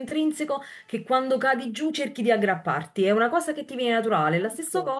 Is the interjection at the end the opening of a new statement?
No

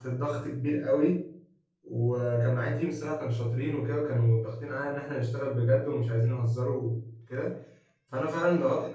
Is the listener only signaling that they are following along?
Yes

